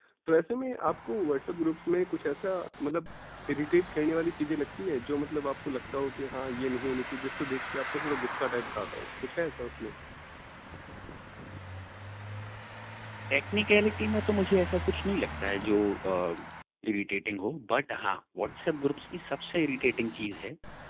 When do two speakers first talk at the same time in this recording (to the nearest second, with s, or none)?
none